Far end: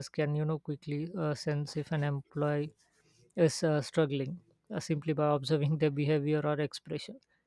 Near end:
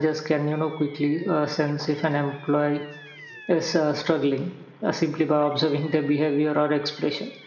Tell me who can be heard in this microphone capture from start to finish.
echo only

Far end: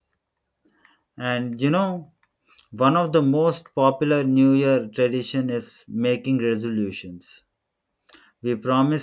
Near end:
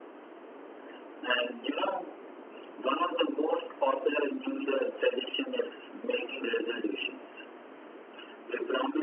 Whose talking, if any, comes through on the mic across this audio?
echo only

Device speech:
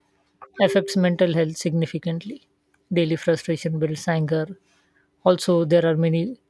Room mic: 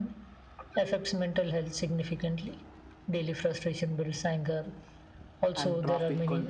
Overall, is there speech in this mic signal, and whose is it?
both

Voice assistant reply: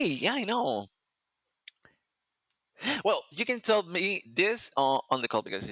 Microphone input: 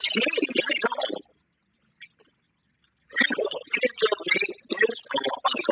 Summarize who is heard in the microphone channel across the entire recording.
echo only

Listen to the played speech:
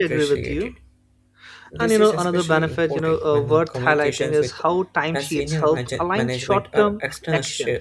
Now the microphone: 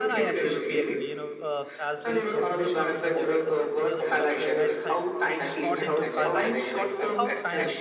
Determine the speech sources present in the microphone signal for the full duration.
both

